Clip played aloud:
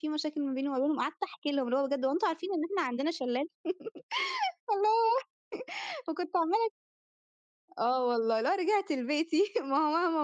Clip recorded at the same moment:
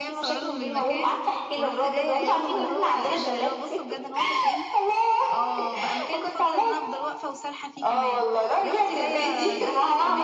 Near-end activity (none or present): present